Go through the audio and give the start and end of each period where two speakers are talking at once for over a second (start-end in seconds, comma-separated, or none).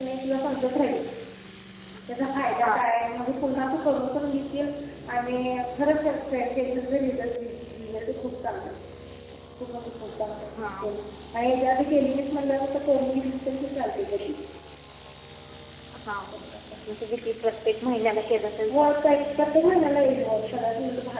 none